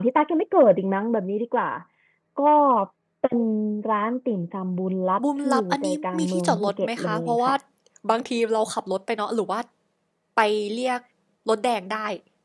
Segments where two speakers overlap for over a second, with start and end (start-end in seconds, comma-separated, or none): 5.4-7.5